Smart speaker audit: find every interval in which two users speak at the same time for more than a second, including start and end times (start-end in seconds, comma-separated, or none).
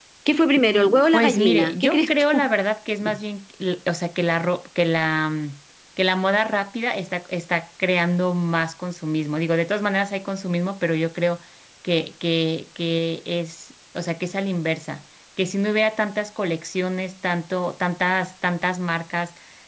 1.1-2.5